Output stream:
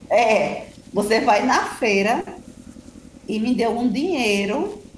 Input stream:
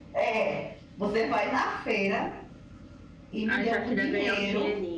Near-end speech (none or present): present